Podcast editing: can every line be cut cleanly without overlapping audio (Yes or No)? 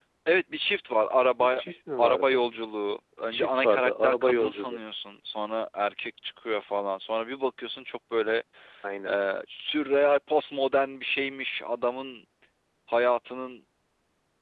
No